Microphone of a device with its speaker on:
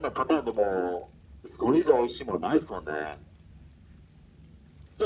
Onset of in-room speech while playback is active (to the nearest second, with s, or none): none